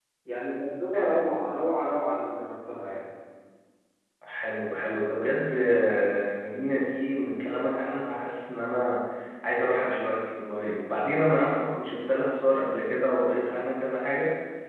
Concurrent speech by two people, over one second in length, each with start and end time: none

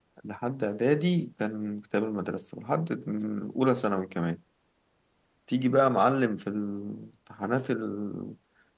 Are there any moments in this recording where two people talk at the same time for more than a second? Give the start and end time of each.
none

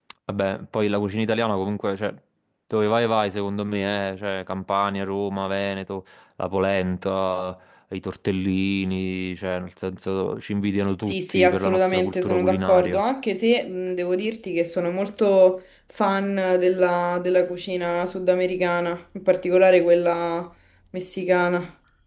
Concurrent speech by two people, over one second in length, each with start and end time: 11.1-13.0

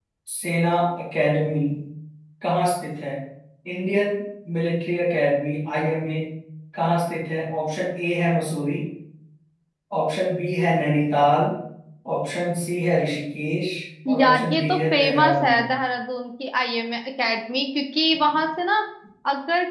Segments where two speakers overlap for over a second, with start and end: 14.2-15.8

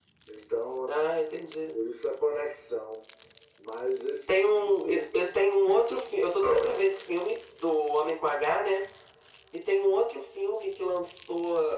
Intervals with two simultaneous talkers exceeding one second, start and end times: none

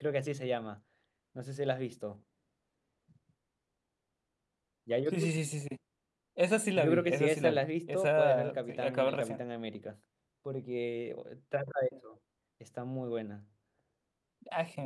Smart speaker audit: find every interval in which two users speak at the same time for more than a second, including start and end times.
6.8-9.4

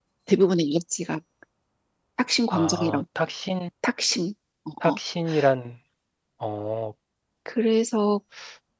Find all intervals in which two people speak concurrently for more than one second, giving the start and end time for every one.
none

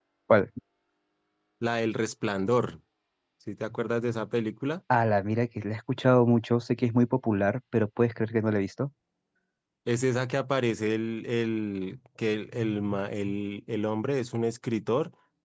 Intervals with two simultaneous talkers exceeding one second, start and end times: none

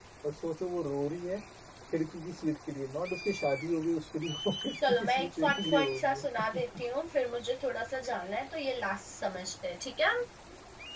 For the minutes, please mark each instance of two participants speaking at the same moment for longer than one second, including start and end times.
4.9-6.2

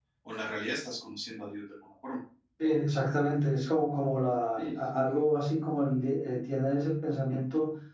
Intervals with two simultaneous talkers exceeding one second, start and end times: none

